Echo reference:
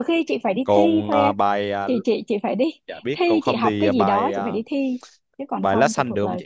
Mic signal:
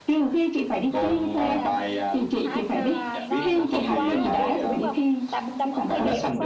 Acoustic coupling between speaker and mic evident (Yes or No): Yes